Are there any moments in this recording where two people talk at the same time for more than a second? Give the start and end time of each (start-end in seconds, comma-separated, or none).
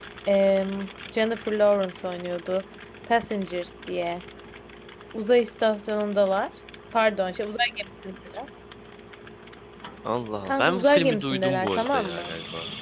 10.4-12.3